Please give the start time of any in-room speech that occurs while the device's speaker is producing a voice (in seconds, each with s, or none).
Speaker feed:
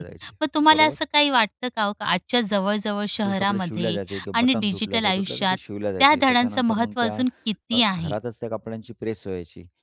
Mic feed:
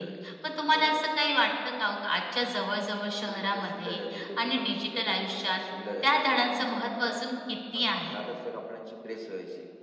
none